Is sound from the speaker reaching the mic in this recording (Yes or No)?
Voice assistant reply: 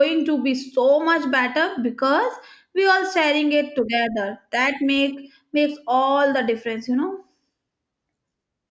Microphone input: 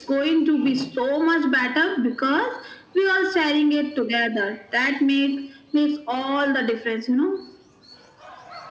Yes